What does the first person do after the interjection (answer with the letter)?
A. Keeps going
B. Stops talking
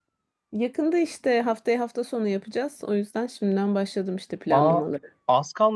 B